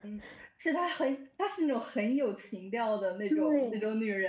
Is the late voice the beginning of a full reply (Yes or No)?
Yes